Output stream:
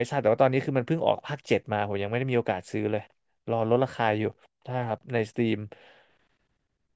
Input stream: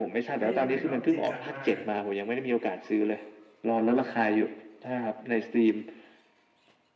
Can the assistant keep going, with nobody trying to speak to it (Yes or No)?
No